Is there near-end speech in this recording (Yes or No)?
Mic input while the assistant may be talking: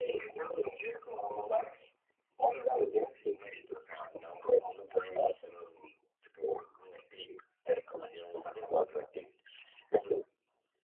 No